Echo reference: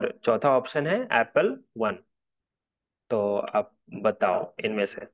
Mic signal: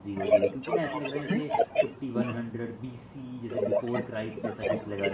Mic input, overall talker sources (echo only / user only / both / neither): both